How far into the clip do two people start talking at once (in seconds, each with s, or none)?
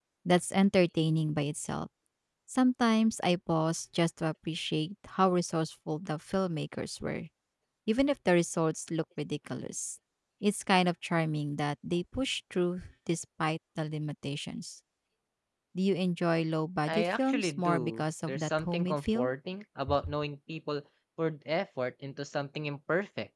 16.9 s